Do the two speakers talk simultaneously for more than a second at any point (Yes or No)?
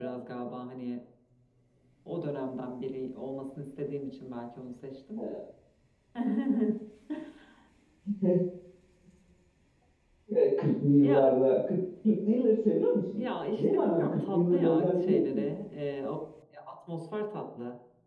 Yes